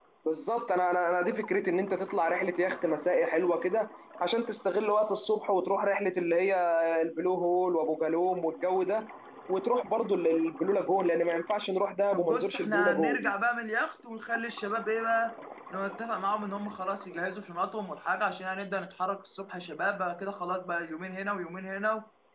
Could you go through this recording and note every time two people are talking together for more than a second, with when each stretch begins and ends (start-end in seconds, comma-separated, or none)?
12.1-13.3